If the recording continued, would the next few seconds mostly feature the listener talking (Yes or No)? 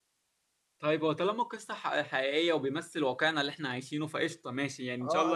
Yes